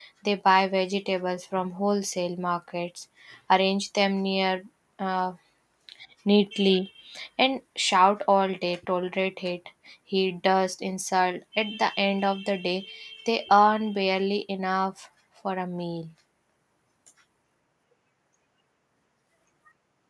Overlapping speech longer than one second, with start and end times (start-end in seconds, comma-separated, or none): none